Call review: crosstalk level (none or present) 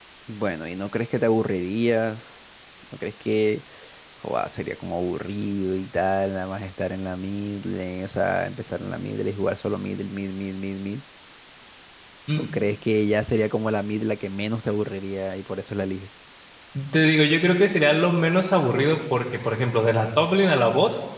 none